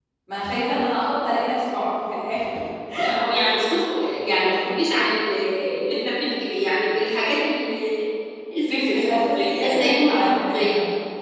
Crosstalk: present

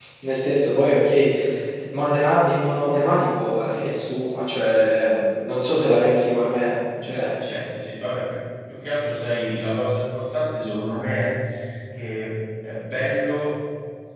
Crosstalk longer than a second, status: none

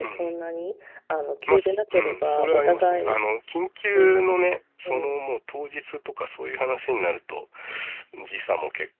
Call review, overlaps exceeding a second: present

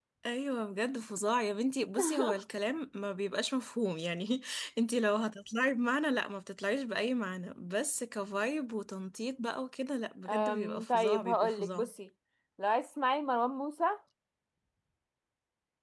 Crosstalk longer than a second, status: present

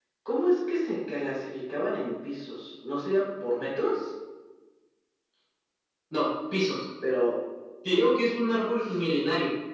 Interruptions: none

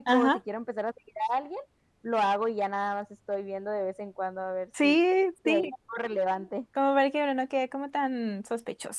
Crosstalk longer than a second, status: none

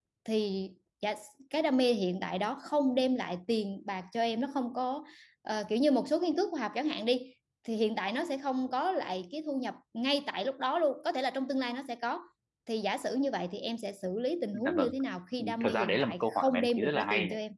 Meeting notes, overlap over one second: present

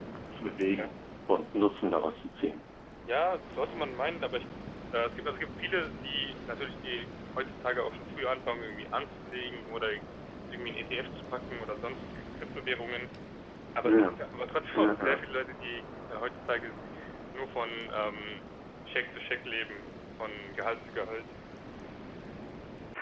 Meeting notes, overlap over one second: none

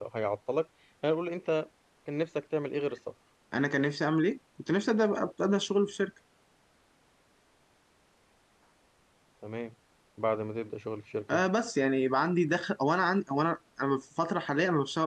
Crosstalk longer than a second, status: none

